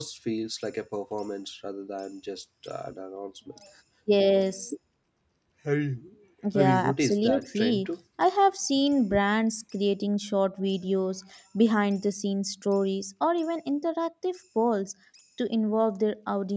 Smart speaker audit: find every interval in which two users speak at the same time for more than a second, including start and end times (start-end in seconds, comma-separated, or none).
6.5-7.9